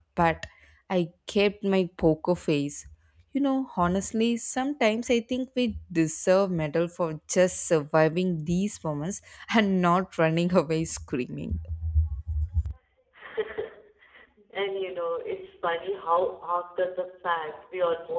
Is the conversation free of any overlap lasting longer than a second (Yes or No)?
Yes